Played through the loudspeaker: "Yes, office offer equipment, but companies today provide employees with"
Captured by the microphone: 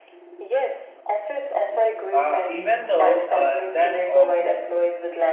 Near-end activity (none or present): present